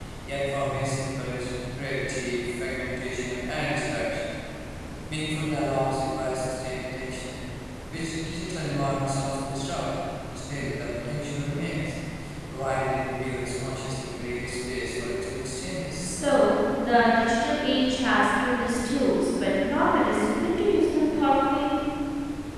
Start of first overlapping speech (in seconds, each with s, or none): none